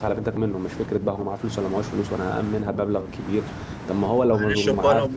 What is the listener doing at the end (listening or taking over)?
taking over